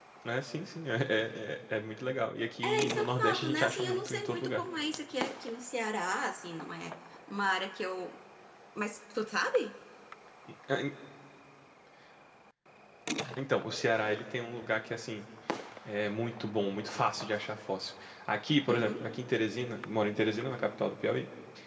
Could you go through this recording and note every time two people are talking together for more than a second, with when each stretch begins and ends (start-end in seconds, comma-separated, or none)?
2.6-4.6